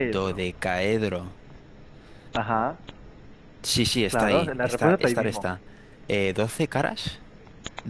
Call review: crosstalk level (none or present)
present